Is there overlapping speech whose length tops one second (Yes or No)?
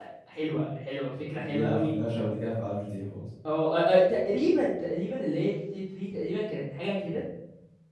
No